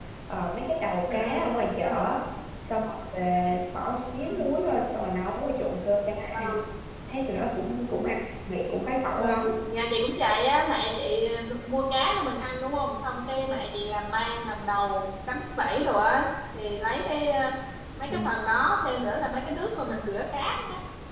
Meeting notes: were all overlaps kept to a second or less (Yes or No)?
Yes